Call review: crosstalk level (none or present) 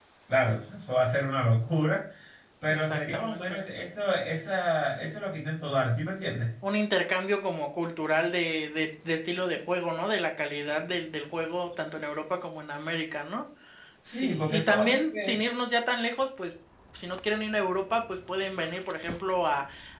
present